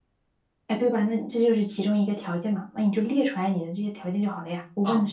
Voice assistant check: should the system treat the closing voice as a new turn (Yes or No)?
Yes